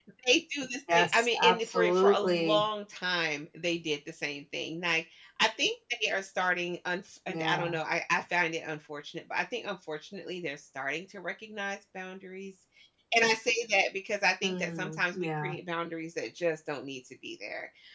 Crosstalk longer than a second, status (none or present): present